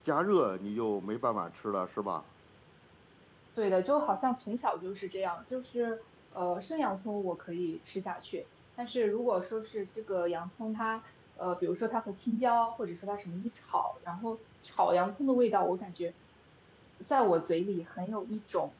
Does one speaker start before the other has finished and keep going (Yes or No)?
No